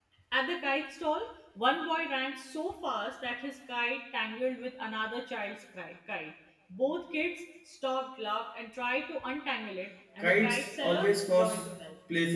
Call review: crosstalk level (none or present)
present